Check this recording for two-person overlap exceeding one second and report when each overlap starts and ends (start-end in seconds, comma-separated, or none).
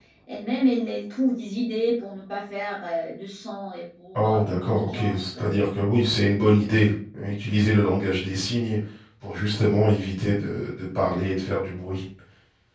4.1-5.5